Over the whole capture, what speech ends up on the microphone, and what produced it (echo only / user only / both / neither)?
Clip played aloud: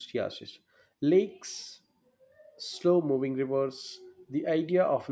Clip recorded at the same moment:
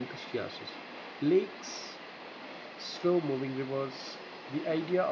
echo only